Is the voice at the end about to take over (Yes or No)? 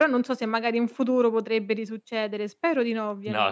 Yes